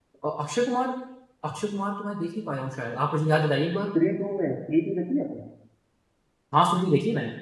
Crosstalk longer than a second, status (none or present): none